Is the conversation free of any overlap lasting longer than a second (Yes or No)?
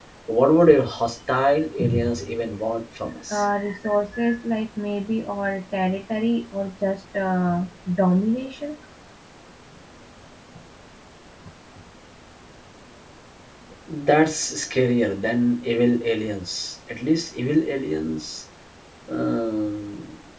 Yes